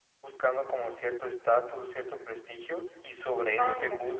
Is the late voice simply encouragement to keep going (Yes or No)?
Yes